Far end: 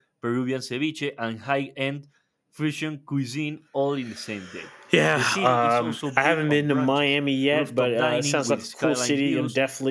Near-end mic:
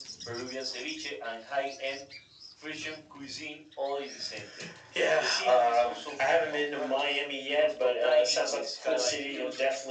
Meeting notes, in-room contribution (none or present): none